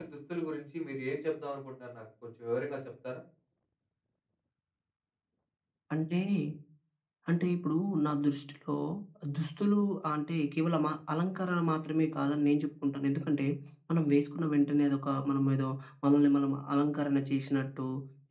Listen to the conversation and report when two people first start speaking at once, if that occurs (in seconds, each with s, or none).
none